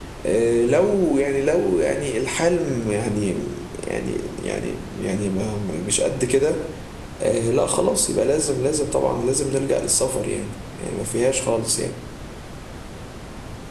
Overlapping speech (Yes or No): No